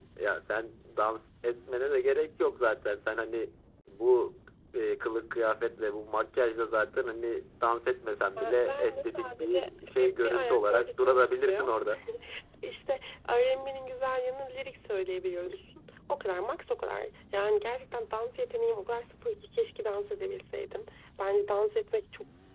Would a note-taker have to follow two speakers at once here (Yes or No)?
Yes